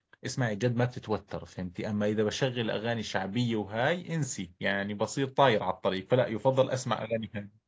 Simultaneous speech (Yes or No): No